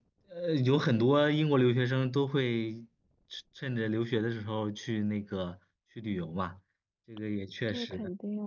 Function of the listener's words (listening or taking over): taking over